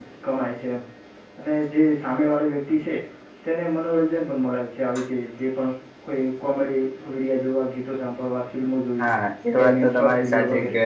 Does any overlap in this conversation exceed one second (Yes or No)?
Yes